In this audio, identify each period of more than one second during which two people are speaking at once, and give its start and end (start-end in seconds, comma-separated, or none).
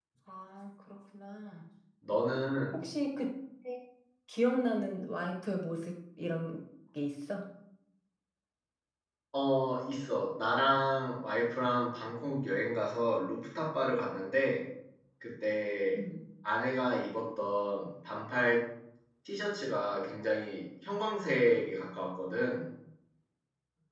none